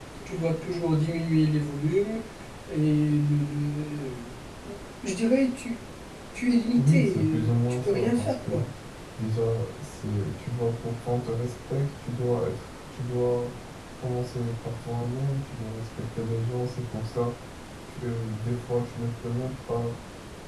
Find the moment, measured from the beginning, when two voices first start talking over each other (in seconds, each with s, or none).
6.7 s